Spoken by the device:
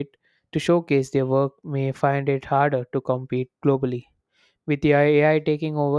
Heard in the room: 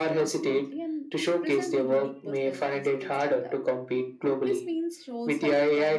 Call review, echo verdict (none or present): present